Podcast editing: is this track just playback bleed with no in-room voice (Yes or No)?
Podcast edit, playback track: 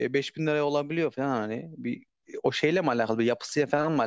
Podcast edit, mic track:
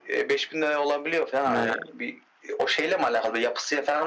No